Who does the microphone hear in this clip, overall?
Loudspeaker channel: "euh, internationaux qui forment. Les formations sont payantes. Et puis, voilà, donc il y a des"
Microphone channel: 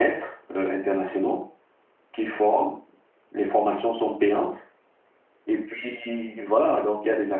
echo only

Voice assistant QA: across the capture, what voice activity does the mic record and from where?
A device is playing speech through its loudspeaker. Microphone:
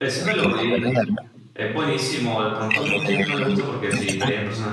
both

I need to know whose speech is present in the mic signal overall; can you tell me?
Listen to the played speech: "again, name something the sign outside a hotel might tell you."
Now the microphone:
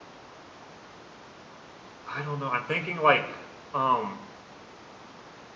user only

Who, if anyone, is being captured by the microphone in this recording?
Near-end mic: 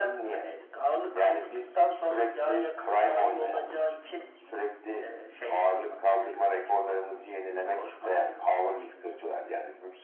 echo only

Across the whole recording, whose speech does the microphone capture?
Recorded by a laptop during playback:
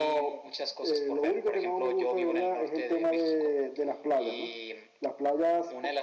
echo only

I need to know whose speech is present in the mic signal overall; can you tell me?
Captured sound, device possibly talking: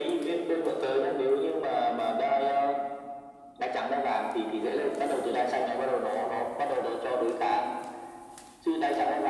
echo only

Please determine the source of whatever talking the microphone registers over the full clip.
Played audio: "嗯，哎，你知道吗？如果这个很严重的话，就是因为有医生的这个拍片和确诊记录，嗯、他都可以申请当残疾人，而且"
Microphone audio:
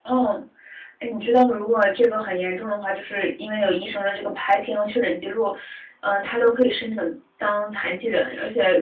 echo only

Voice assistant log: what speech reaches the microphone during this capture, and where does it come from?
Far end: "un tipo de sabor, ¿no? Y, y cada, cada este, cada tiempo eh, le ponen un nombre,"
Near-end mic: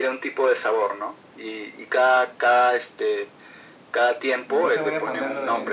both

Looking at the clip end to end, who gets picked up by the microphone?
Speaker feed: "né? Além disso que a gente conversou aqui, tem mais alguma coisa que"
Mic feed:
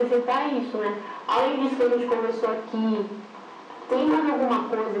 echo only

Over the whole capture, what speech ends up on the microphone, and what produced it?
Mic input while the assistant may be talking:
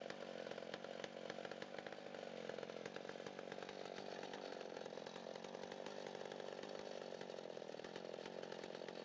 neither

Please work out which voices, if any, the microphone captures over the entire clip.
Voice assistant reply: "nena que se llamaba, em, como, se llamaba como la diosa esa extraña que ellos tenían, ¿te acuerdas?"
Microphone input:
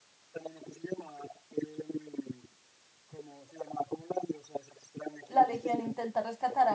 both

